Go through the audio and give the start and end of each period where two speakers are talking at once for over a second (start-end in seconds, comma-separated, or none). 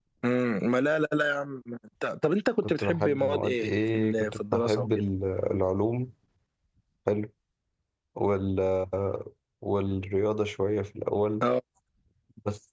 2.6-4.9